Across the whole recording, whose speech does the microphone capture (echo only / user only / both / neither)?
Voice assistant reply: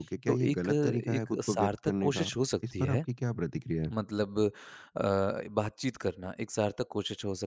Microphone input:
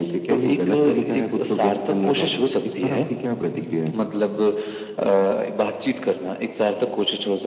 echo only